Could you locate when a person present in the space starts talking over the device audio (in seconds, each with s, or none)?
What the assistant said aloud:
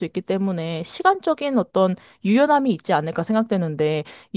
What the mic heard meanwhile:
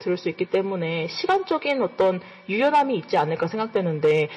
none